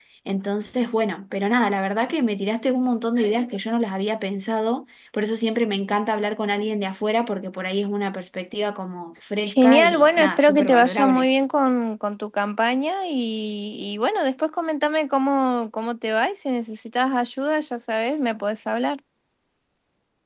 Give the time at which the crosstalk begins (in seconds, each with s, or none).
9.5 s